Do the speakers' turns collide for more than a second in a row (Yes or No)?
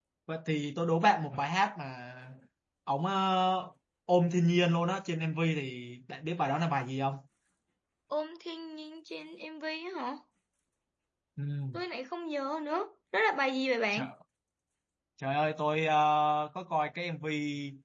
No